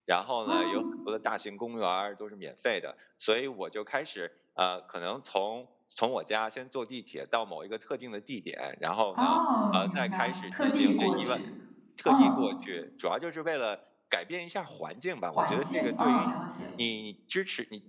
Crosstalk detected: Yes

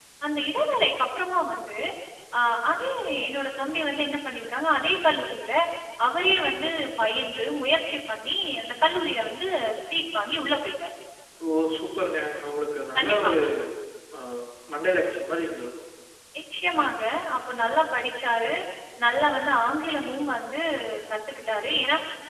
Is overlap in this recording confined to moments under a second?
Yes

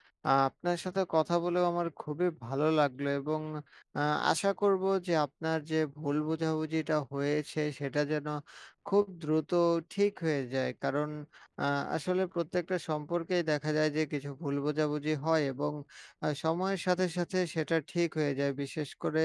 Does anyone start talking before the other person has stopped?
No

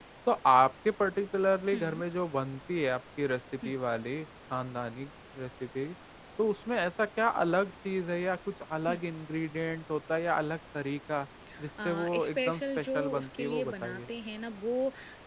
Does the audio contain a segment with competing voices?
Yes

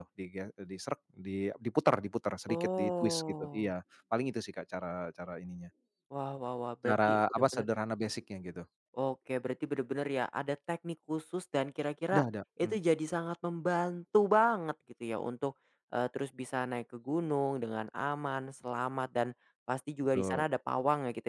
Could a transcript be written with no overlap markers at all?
No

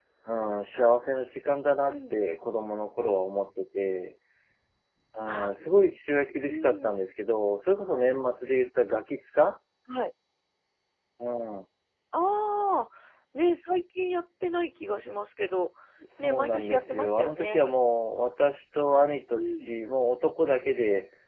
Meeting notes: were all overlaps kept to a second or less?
No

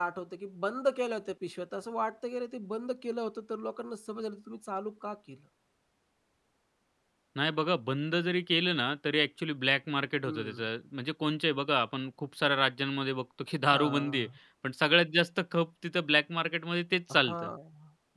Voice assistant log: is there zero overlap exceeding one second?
Yes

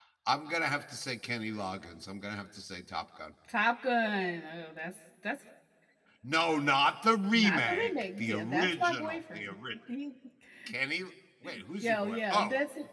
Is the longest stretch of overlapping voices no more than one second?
No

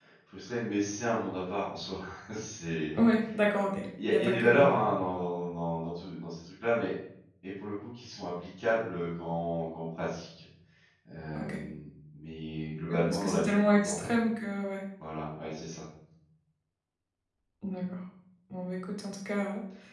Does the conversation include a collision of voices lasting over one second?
Yes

